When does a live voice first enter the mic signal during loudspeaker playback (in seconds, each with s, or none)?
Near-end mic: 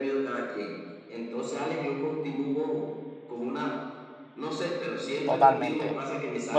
5.2 s